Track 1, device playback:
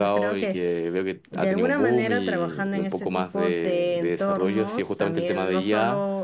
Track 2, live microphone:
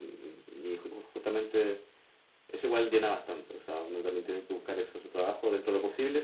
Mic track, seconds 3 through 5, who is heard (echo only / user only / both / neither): user only